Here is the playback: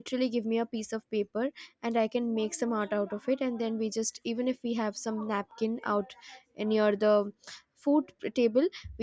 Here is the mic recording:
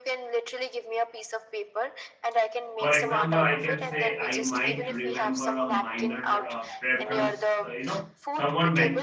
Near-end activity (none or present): present